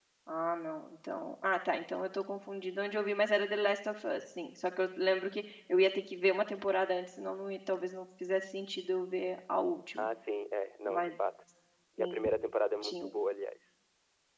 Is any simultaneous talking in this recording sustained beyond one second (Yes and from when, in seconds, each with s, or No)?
No